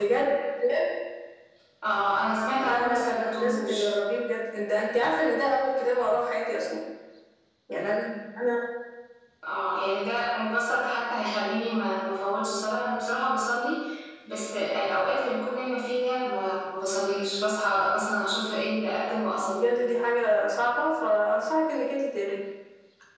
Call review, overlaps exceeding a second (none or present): present